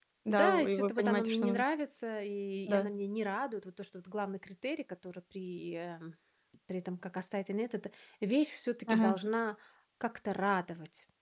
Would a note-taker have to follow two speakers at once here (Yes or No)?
Yes